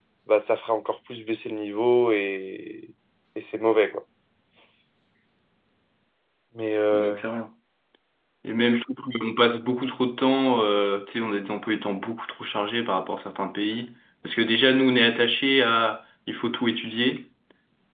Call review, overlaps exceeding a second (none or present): none